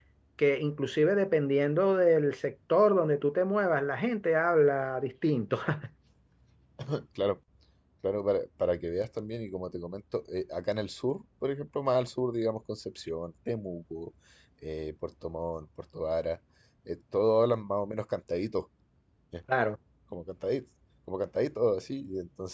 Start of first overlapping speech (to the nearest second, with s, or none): none